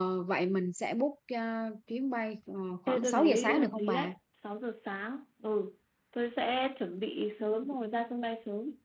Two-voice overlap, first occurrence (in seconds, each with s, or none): 2.9 s